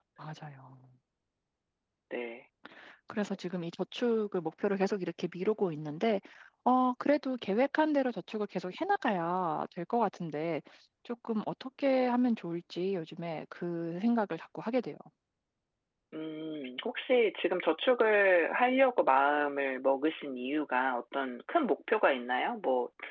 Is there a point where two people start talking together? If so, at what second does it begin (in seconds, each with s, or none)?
none